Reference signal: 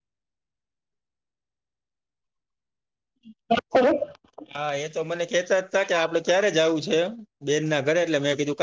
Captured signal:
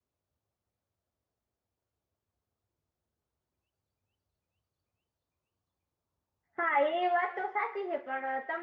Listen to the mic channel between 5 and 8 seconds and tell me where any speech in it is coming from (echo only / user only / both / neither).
user only